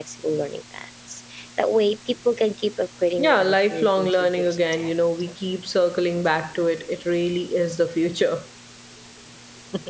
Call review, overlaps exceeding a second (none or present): present